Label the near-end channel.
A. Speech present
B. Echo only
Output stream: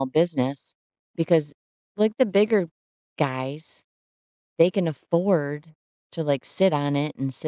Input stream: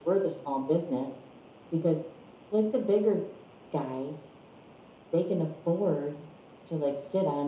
B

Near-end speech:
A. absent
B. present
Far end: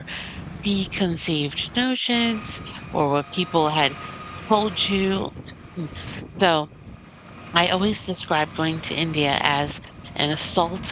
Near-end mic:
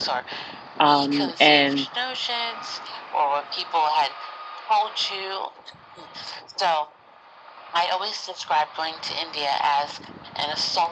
B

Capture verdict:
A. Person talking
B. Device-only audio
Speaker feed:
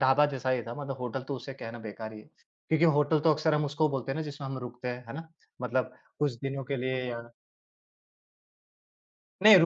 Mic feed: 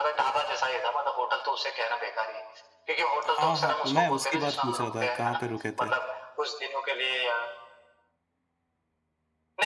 A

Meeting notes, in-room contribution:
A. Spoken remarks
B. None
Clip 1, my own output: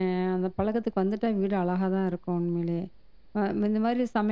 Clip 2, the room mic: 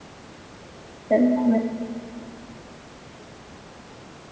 A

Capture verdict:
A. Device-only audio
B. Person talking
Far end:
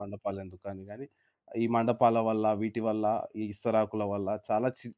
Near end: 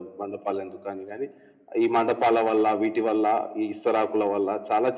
A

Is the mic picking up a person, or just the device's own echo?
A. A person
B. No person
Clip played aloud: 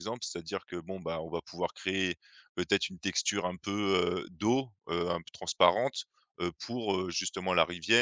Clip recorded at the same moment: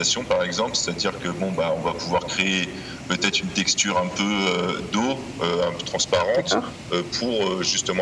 A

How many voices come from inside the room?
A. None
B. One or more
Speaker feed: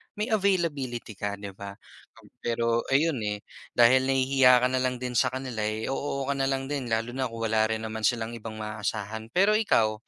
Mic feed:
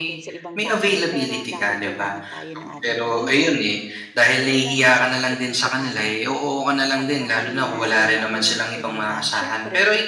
B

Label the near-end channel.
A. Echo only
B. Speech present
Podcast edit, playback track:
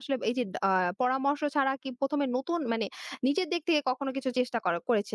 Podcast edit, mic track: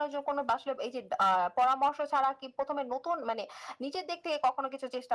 A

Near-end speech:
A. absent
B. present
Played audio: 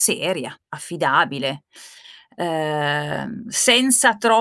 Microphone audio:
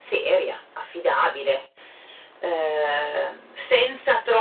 A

